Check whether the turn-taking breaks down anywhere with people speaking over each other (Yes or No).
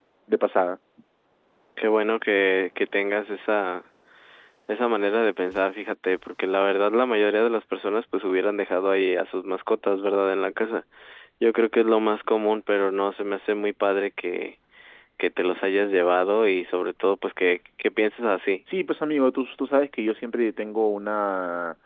No